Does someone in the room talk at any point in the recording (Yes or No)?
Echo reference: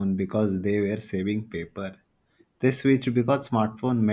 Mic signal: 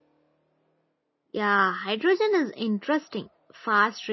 Yes